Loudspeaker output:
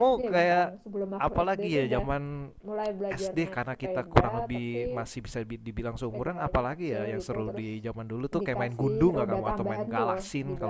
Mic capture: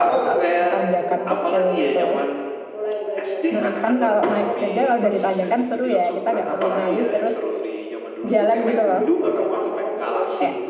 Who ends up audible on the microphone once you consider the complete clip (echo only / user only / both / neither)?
both